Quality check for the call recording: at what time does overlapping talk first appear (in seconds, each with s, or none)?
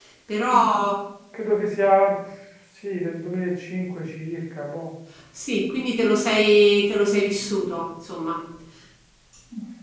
none